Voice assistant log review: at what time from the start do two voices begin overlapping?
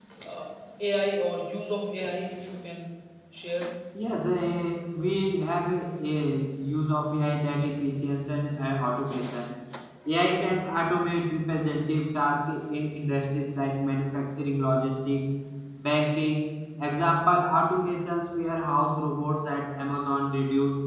none

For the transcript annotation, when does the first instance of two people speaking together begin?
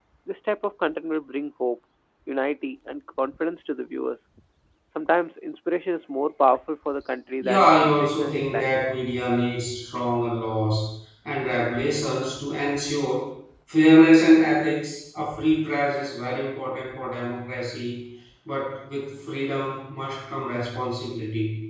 7.4 s

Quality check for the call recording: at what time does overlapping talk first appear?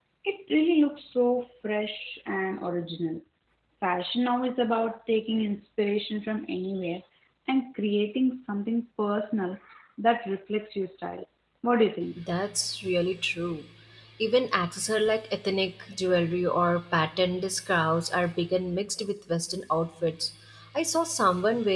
none

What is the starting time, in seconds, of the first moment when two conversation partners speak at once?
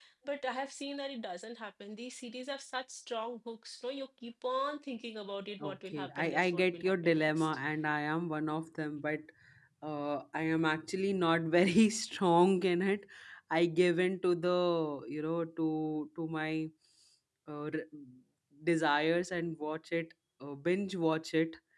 5.6 s

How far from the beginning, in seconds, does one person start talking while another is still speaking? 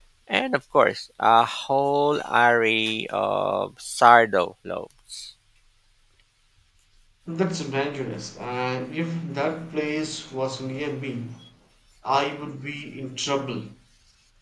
none

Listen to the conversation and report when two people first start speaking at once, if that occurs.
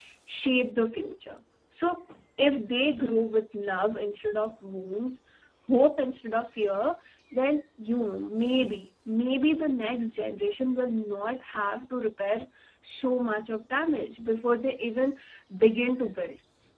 none

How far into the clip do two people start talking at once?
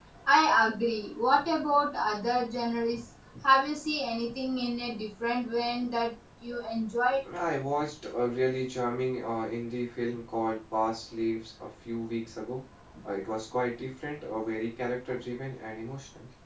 none

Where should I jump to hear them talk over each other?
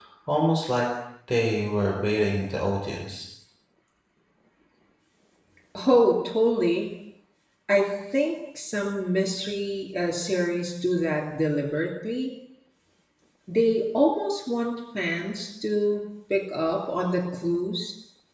none

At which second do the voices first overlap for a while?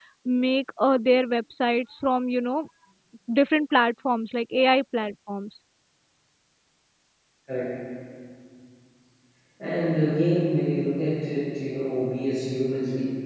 none

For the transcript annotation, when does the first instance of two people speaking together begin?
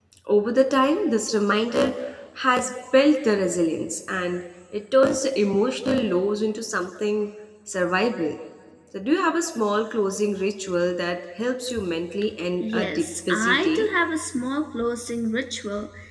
12.6 s

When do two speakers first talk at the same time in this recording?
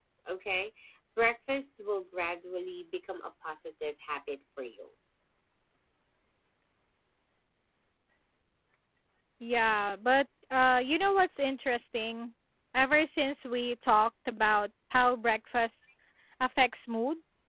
none

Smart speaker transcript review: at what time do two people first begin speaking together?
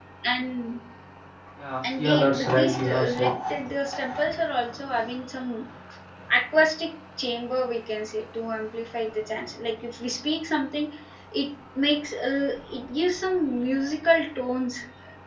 1.9 s

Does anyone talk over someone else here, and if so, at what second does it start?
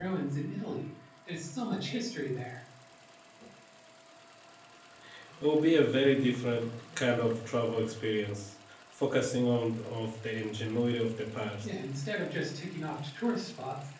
none

